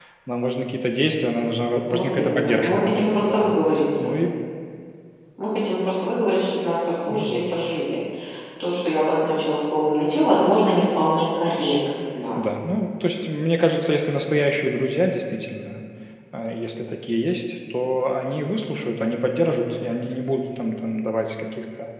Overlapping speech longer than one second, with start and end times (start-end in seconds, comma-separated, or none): 1.9-3.4